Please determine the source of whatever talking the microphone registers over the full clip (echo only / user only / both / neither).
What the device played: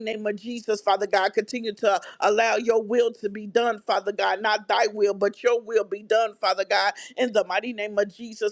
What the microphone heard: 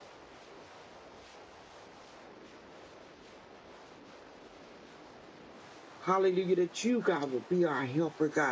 user only